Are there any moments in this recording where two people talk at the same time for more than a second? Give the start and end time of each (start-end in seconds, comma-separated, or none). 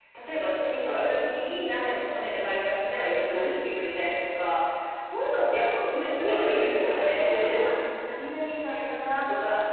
6.3-7.7